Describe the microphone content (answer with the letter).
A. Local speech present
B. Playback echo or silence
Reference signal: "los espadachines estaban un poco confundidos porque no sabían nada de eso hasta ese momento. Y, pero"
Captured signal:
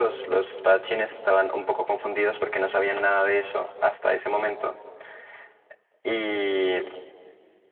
B